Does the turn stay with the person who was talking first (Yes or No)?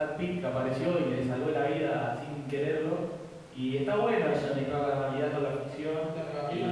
No